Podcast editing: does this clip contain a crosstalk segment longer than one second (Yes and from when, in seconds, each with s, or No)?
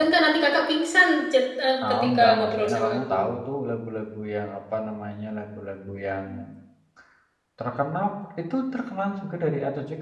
Yes, from 1.8 s